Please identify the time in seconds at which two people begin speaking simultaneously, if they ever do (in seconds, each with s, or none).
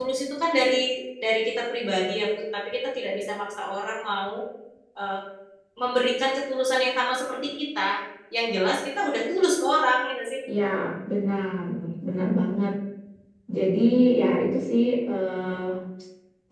none